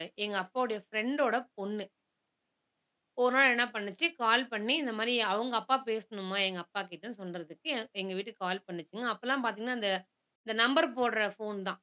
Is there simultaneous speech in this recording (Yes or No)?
No